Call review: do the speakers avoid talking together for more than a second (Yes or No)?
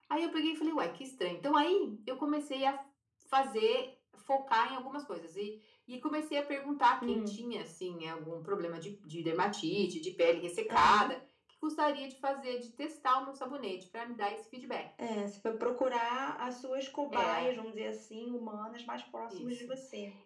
Yes